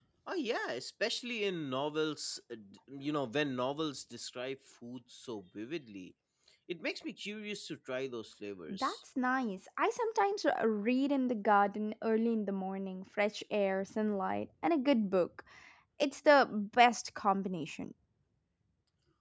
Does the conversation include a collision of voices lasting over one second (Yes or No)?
No